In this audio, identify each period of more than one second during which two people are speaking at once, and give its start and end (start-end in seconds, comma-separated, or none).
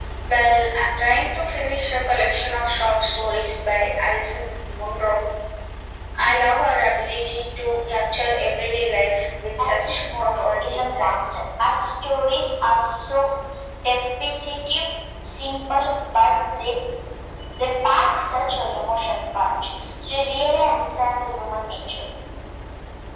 9.6-11.2